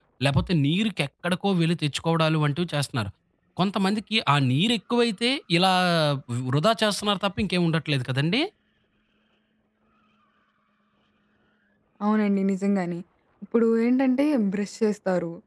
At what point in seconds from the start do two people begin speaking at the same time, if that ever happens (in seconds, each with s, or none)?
none